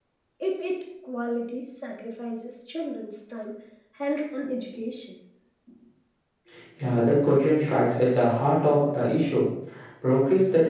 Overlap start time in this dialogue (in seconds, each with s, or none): none